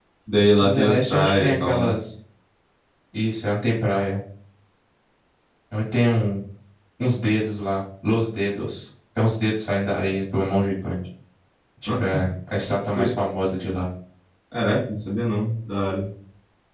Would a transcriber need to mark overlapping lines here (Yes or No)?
Yes